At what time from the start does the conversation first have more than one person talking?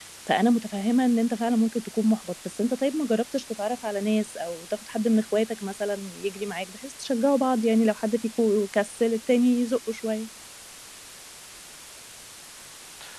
none

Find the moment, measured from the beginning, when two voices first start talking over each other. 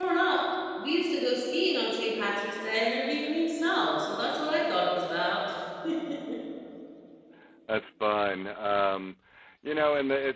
none

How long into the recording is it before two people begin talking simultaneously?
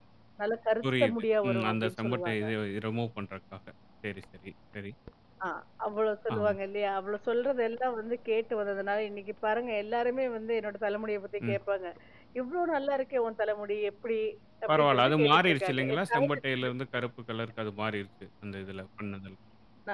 0.8 s

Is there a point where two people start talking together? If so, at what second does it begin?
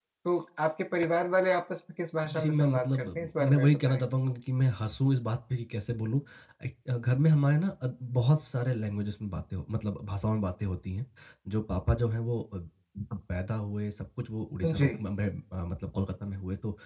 2.4 s

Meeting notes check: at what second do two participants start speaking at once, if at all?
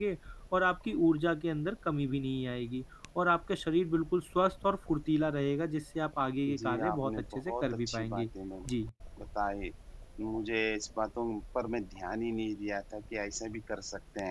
6.5 s

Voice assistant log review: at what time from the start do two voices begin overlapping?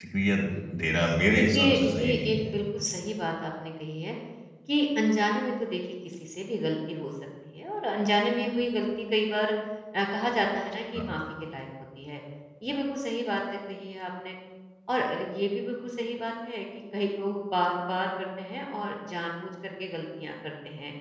0.8 s

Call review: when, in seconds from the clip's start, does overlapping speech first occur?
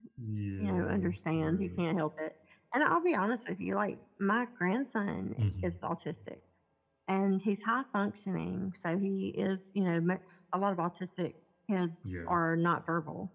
0.6 s

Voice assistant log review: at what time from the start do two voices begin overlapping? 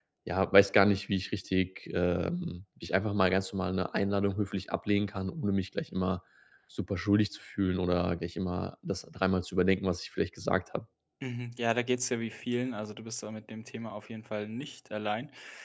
none

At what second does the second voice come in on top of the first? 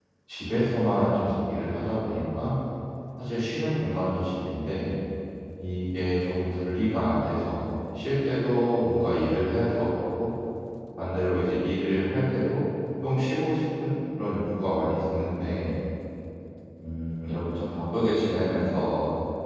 none

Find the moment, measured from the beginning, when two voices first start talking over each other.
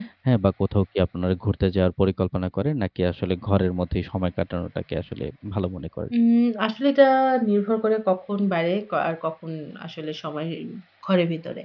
none

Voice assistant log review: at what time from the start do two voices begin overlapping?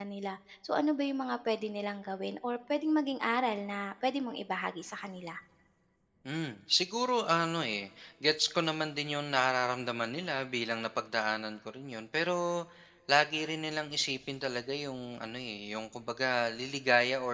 none

